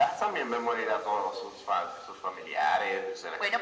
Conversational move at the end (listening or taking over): taking over